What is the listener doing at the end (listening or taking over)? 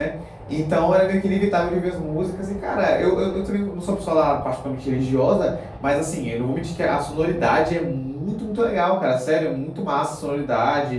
listening